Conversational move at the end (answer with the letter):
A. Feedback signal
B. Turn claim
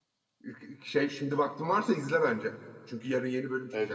B